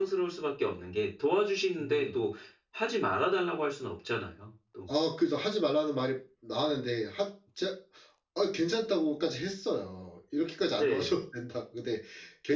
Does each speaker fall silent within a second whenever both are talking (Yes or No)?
Yes